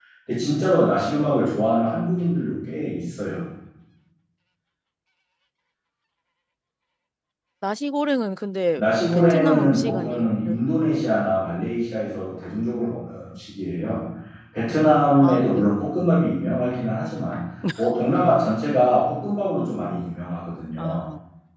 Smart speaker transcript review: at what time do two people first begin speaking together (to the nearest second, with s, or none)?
9 s